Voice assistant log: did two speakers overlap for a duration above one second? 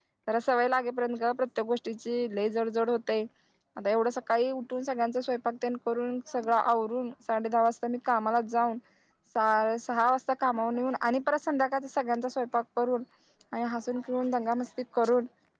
No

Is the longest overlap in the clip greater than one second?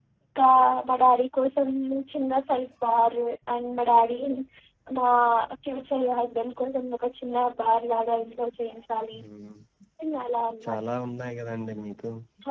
No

